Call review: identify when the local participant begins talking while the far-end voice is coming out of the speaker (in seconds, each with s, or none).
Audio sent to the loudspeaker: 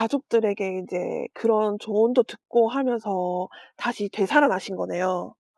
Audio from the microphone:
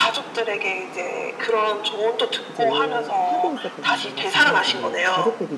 2.5 s